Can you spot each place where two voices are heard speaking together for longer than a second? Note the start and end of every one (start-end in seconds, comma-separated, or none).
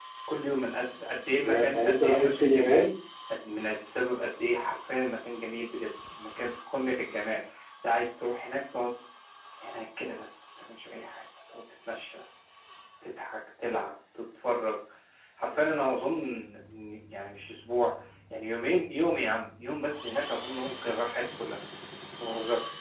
1.4-2.9